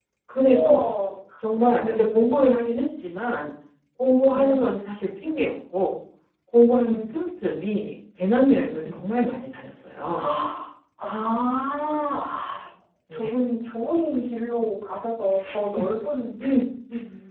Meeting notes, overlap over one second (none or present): none